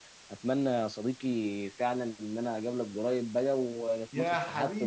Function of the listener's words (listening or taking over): taking over